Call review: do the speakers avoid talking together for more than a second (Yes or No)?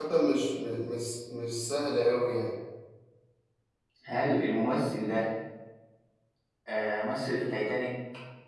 Yes